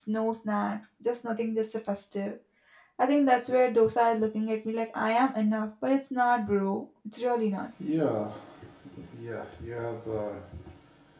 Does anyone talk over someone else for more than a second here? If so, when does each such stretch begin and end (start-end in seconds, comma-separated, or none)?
none